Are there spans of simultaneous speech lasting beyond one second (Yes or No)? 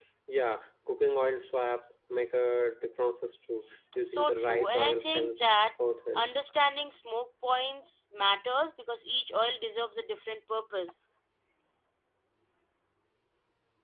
Yes